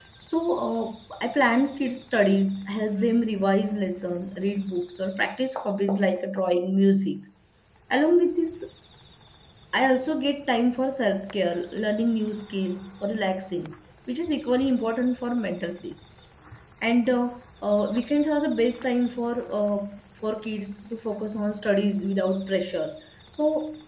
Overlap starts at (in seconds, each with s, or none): none